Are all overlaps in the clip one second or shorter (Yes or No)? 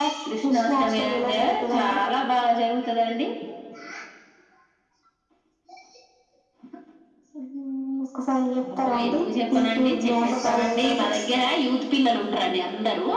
No